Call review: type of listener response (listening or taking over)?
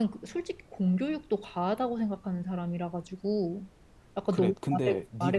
taking over